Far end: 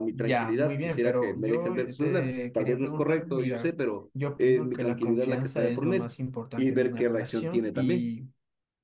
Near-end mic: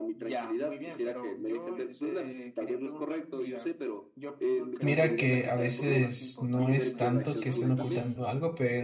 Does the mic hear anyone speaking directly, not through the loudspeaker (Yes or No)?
Yes